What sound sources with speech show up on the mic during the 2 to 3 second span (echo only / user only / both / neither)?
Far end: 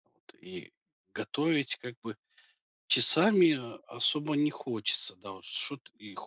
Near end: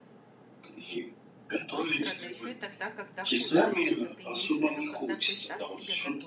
both